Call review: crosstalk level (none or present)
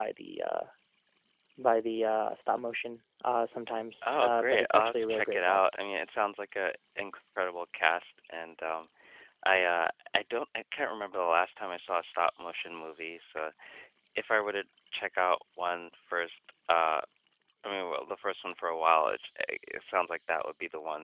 present